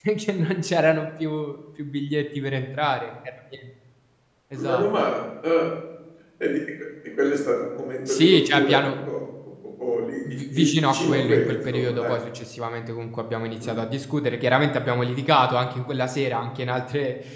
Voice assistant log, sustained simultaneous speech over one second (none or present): present